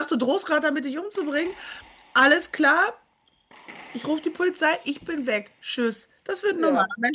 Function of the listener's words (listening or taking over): listening